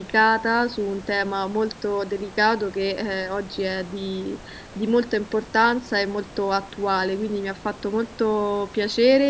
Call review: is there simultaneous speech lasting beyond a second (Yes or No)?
No